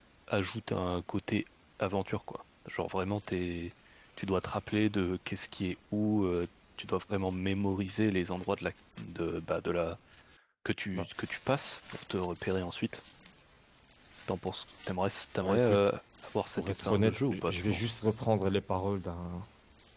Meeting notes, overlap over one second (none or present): present